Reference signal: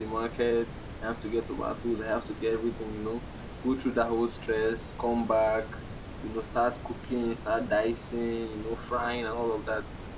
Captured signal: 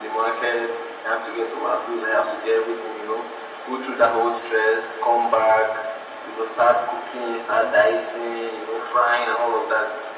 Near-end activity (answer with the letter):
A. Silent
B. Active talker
A